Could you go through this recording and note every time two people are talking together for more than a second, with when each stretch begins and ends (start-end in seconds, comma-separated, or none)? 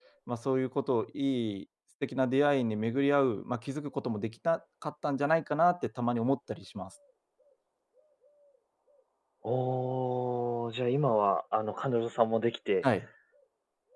none